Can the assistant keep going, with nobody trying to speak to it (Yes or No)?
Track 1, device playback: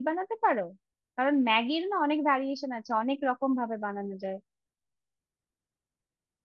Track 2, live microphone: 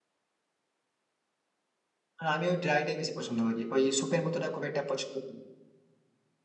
No